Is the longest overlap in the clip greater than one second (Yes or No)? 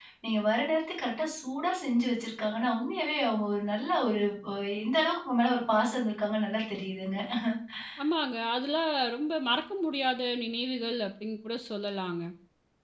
No